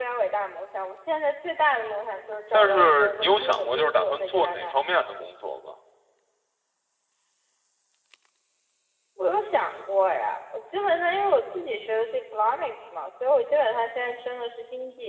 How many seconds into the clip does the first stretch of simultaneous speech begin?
3 s

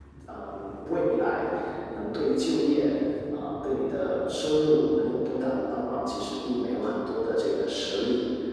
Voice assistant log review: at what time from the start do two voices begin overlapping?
none

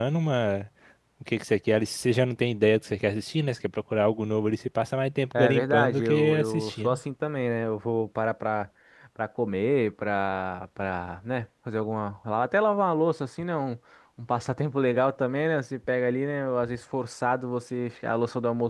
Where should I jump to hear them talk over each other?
5 s

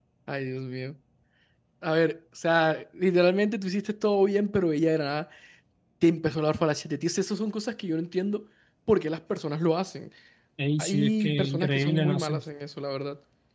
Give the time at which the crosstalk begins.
11 s

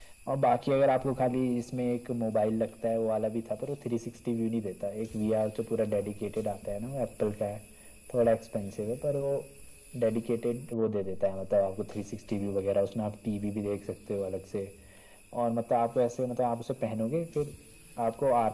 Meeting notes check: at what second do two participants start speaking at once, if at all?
none

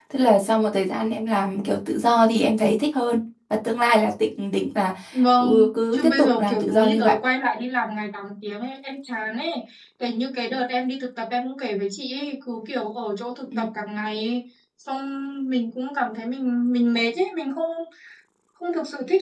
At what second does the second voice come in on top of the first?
5 s

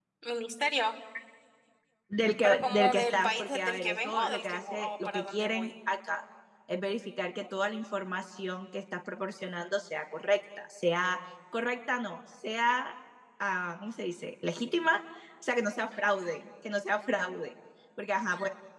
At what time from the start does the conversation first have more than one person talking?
2 s

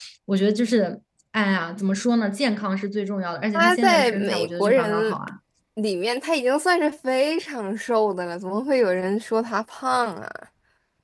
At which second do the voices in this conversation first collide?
4 s

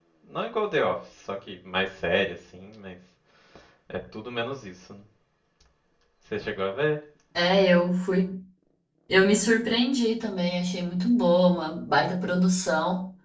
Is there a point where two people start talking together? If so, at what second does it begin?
none

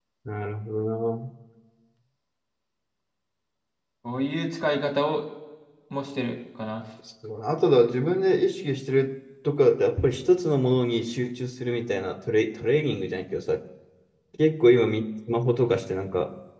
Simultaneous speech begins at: none

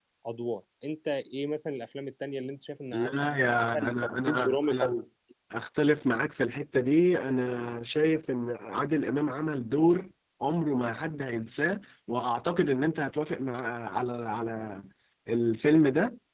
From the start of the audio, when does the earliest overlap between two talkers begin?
3 s

